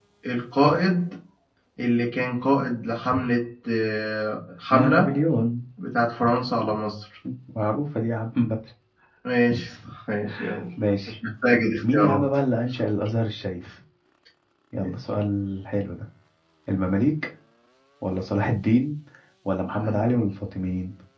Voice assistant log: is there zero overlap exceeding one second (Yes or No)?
Yes